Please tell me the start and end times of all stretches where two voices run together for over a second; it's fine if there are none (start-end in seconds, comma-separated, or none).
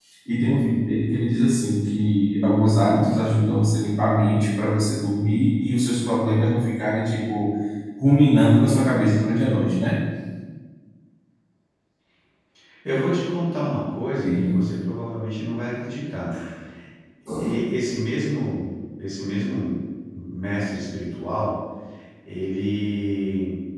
none